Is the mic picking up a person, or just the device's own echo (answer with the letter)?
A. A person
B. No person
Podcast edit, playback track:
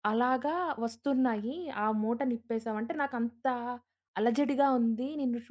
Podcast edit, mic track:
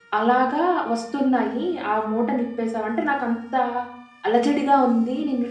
B